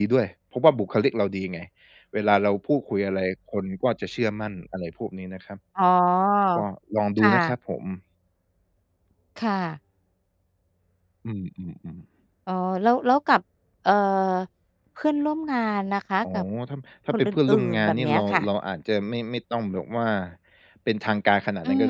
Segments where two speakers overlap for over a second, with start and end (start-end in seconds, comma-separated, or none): 17.1-18.4